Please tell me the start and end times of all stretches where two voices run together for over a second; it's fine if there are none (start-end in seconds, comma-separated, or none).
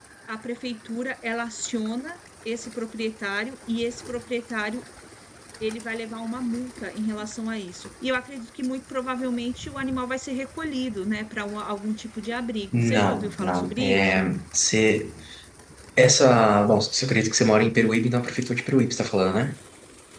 12.7-14.2